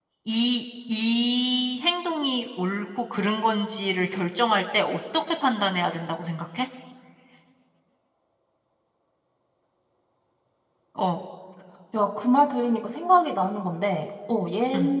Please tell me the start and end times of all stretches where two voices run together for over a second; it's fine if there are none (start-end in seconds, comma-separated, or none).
none